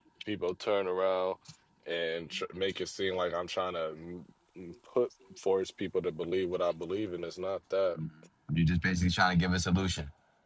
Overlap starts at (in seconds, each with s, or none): none